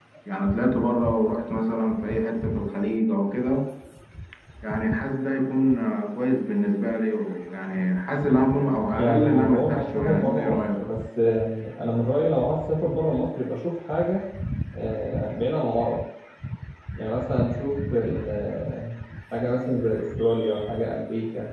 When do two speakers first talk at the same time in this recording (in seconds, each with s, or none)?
8.9 s